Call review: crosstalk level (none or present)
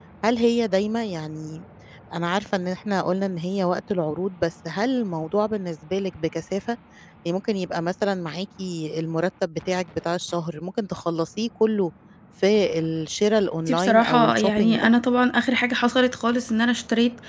present